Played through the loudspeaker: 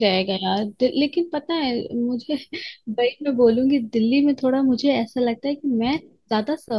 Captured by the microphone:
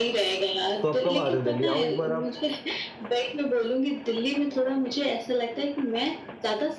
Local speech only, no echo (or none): तो आप कब आ रहे हो दिल्ली आओ एक बार आप